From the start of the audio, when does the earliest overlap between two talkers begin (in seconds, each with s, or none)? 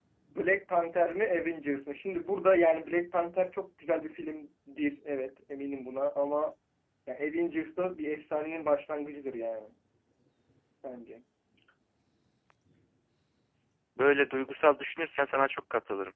none